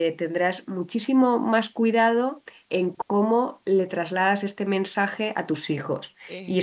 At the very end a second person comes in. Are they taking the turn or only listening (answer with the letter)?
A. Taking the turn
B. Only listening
B